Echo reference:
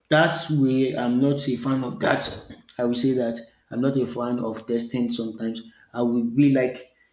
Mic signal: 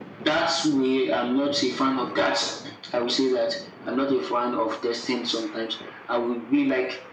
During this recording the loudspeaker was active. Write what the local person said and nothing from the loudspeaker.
none

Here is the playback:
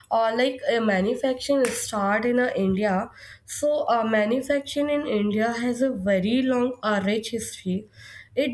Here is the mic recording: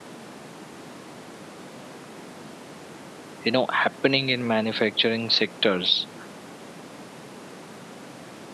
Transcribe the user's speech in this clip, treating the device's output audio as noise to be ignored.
you know happening in manufacturing sectors.

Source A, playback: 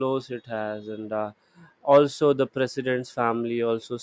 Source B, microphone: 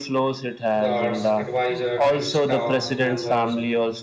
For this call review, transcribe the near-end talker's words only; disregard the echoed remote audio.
guards, advisors, and staffs members

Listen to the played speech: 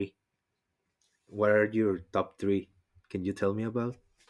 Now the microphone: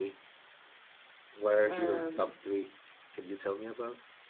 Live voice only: Um

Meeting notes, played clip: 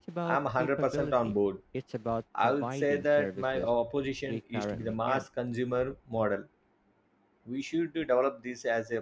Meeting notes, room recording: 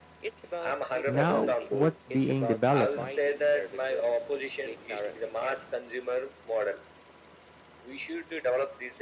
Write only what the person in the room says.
Now, what's being developed now?

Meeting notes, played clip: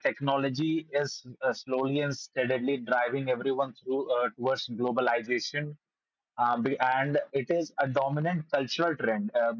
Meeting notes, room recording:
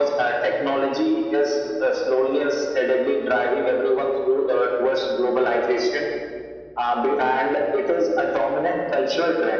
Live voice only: none

